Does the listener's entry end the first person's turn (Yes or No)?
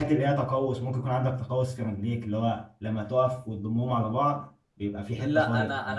Yes